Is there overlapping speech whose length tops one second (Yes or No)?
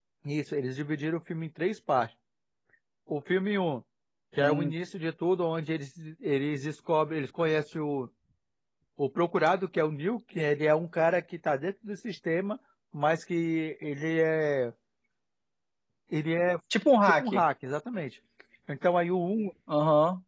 No